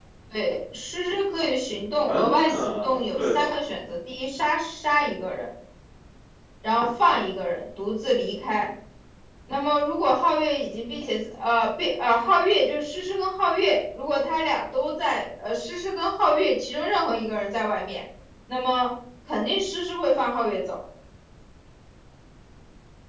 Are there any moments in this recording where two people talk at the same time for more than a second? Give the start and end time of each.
2.1-3.5

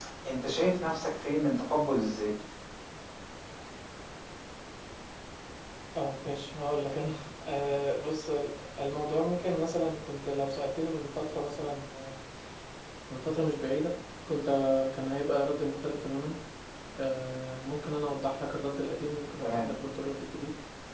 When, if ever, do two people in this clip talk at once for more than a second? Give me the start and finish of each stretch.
none

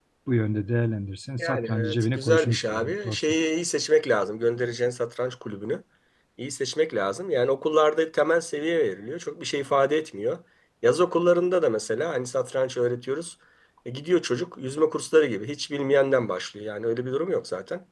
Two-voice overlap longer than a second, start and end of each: 1.4-3.4

